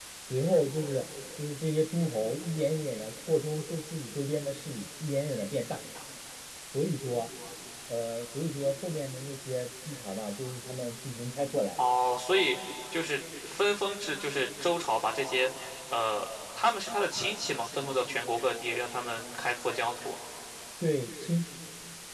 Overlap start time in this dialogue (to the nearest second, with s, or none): none